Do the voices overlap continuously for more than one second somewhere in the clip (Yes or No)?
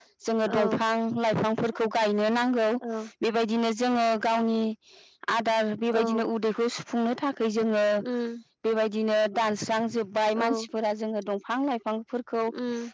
No